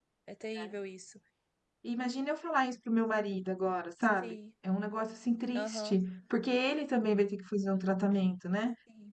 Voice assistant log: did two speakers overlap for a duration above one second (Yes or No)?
No